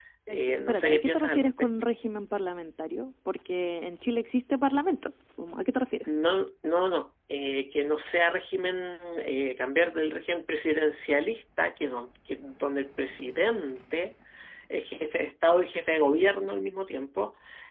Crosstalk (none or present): present